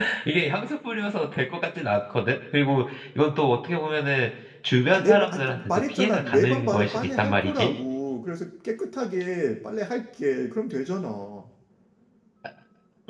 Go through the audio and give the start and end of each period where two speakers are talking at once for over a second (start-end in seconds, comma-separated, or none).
4.9-7.7